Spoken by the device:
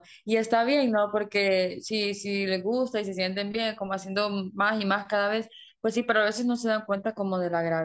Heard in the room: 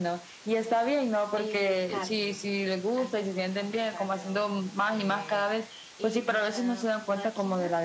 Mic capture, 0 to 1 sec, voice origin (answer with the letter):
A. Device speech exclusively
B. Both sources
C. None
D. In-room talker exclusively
A